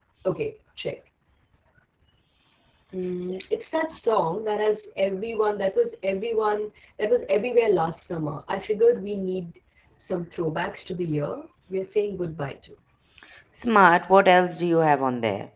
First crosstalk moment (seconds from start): none

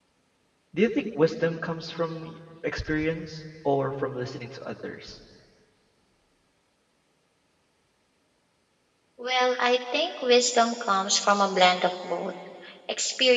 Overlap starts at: none

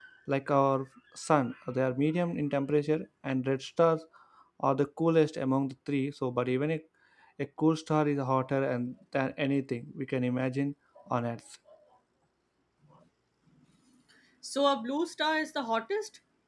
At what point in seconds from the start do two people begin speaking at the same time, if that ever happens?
none

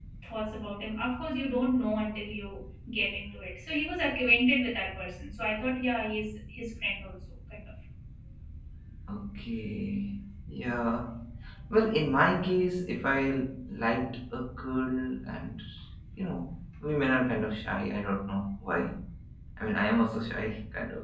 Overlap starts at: none

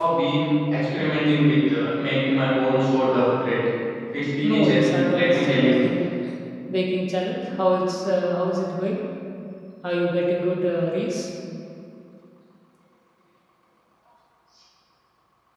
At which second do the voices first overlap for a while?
4.4 s

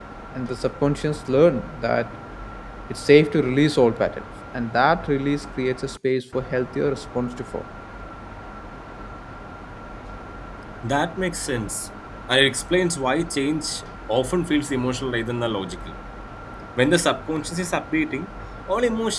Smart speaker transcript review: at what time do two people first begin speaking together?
none

